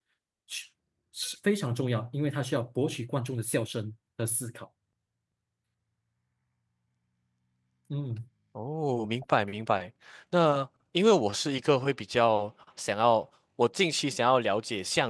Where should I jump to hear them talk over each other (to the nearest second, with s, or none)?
none